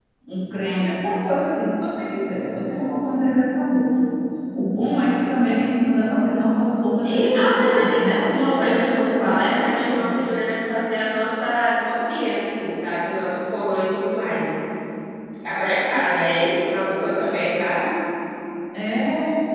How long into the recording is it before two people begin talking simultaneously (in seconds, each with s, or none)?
7.0 s